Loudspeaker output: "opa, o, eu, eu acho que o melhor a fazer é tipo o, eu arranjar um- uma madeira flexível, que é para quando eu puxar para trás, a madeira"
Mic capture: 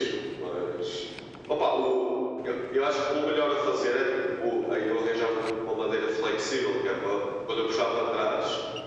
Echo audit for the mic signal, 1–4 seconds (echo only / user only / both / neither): echo only